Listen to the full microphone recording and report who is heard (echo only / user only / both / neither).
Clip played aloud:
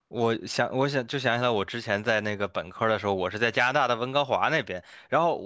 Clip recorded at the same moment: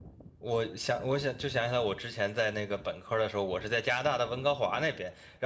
echo only